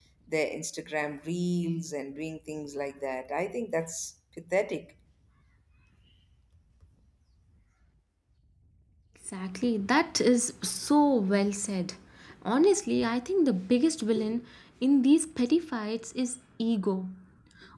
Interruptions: none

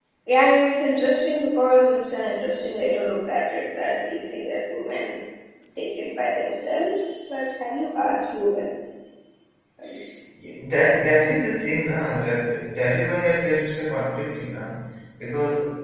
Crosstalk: none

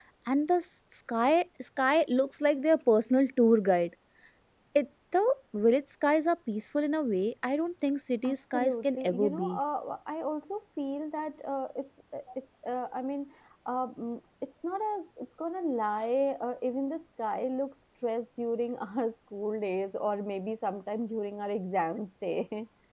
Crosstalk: present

